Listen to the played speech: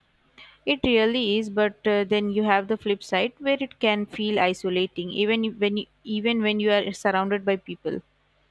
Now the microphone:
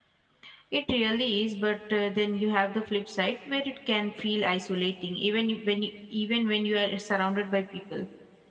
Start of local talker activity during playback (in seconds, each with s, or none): none